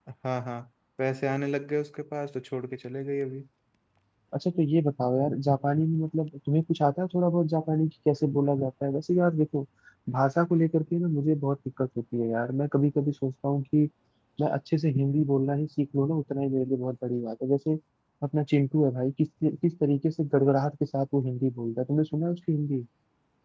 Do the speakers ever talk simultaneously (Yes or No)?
No